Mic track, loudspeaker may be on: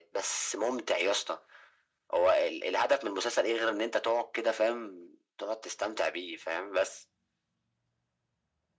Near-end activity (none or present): none